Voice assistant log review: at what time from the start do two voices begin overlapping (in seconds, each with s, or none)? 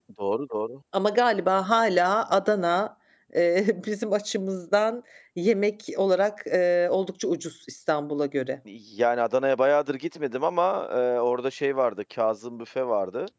none